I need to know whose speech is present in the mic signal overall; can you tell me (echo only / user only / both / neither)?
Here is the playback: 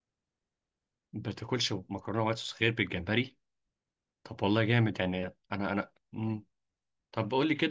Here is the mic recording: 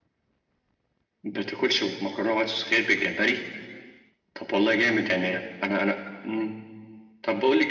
echo only